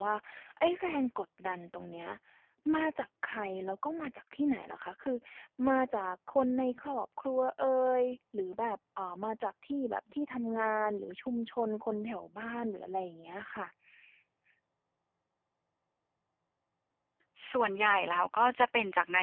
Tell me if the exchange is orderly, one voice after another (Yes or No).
Yes